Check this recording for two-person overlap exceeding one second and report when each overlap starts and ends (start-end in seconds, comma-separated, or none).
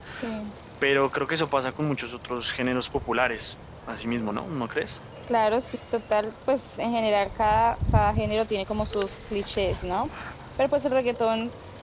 none